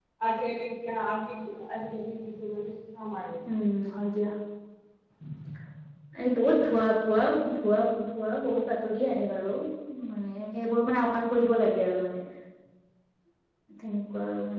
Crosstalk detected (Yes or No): No